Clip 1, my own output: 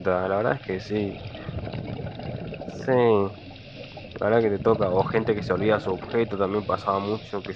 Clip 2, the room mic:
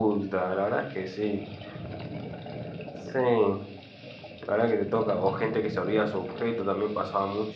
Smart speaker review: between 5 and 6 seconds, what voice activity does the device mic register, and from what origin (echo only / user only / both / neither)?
echo only